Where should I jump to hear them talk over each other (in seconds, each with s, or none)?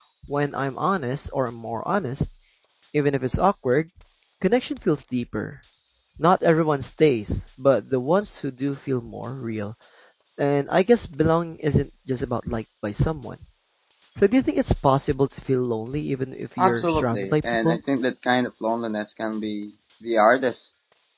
16.6 s